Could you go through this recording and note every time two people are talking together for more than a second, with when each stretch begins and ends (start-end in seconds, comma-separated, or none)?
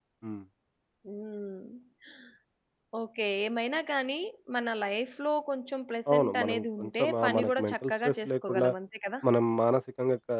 6.1-8.7